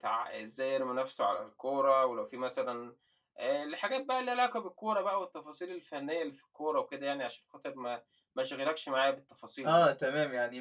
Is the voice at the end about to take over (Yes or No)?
Yes